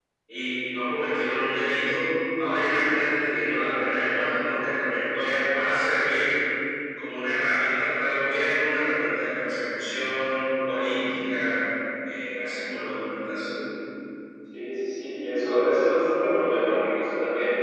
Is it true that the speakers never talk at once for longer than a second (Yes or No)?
Yes